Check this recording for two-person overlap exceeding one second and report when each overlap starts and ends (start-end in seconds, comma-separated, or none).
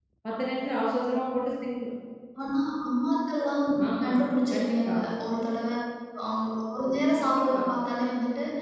none